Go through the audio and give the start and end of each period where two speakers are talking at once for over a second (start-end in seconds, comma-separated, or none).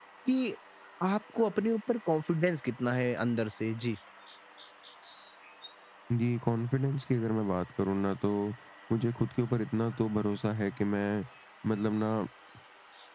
none